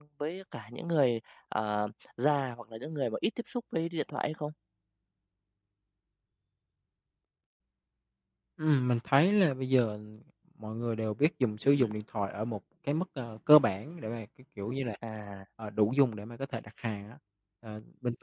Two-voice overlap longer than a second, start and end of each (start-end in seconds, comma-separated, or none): none